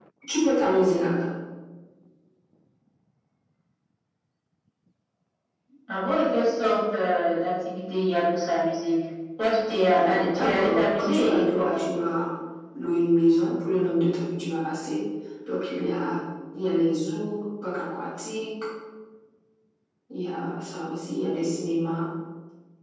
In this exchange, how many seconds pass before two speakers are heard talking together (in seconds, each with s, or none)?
9.9 s